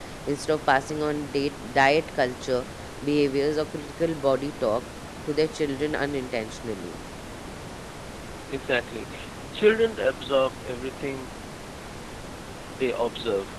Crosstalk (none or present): none